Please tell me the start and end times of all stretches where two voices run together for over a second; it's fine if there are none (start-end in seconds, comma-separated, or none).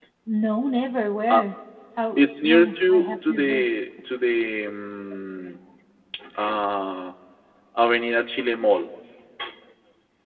2.2-3.6